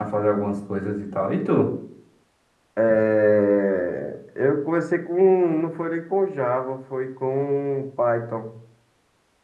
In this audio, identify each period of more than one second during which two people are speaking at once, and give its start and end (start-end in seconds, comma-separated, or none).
none